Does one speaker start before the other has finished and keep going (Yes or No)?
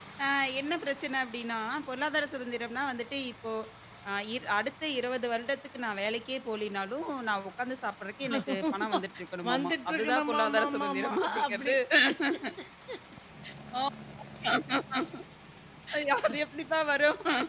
Yes